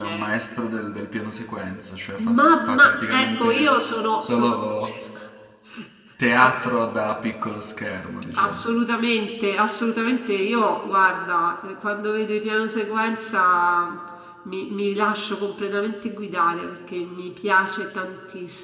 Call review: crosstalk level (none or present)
present